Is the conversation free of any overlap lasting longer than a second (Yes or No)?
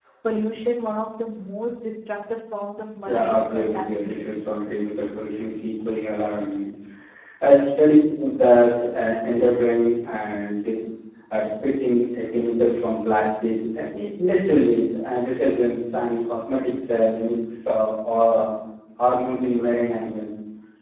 No